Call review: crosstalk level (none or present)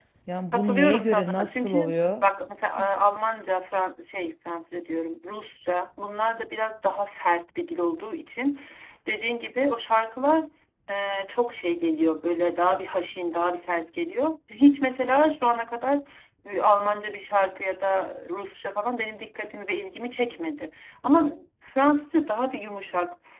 present